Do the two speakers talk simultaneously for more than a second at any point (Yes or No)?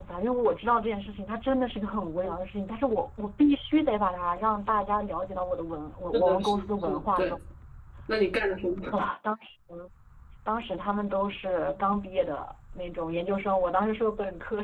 Yes